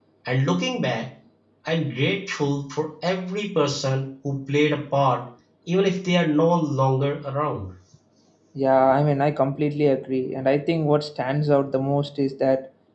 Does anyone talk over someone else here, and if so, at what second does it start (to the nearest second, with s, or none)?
none